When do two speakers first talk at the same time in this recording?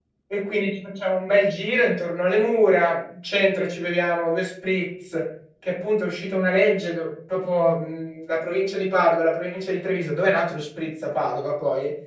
none

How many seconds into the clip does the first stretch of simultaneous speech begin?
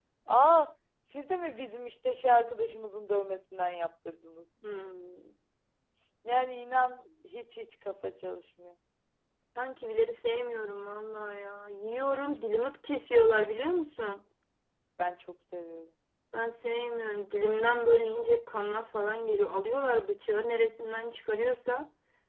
none

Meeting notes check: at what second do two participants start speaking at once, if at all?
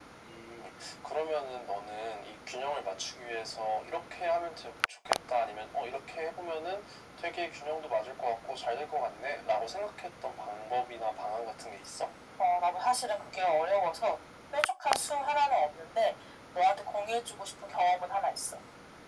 none

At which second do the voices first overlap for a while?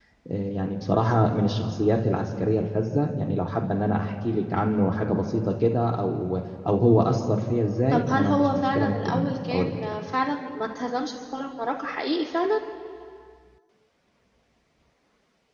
8 s

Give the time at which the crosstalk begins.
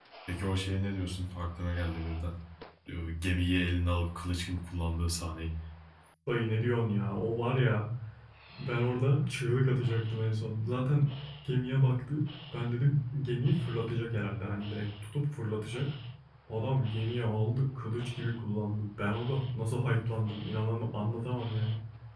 none

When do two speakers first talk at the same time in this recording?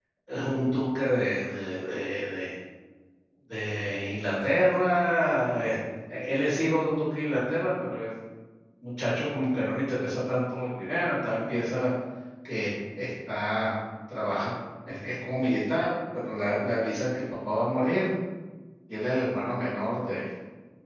none

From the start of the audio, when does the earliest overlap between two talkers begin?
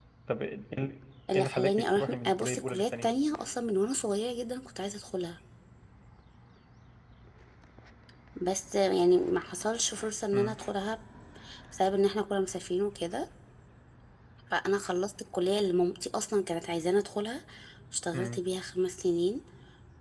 1 s

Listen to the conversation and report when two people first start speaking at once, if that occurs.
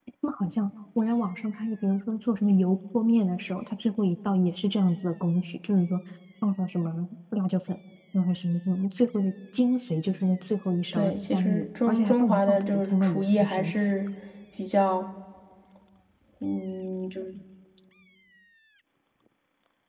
11 s

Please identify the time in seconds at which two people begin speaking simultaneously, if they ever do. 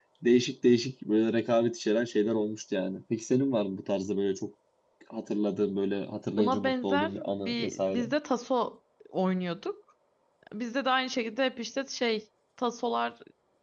6 s

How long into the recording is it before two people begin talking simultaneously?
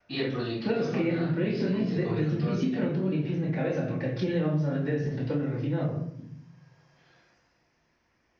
1 s

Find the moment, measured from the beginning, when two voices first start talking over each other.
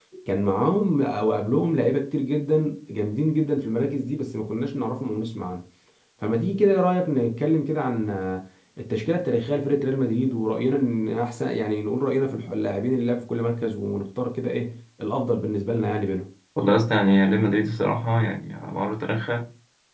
none

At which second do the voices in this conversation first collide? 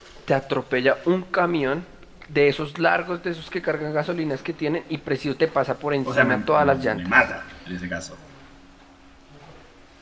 6 s

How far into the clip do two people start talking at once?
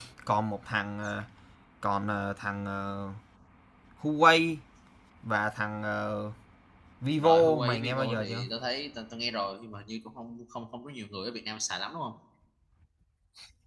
7 s

